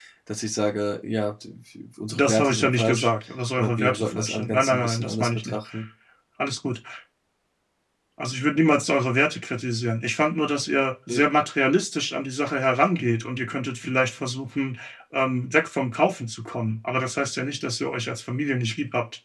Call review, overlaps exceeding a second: present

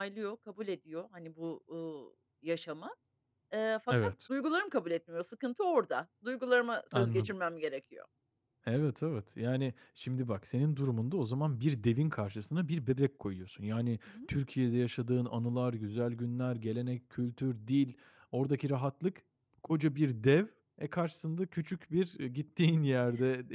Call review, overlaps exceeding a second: none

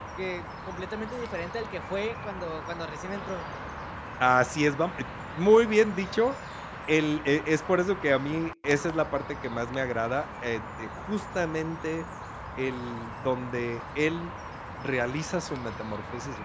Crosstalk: none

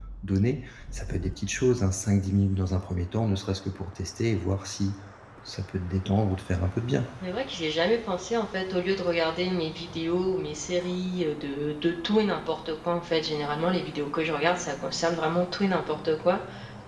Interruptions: none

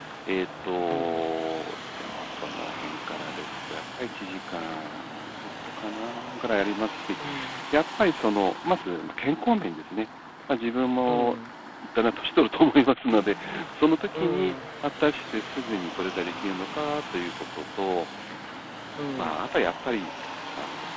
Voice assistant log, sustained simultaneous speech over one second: none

